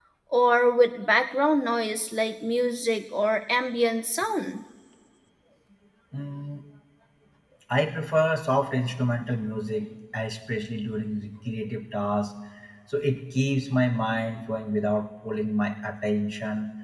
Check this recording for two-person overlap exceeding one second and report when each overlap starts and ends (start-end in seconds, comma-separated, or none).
none